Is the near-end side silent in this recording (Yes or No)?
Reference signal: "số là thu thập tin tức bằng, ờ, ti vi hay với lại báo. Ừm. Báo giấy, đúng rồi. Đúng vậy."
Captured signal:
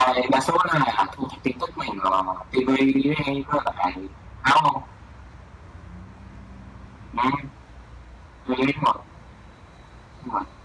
Yes